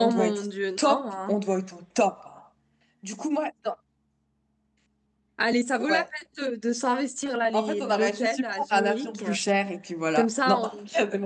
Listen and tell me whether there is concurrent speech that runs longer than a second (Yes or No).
Yes